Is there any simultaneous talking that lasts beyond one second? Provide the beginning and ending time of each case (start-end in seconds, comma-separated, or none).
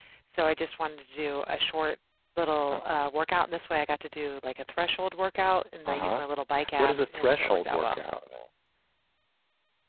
6.8-8.0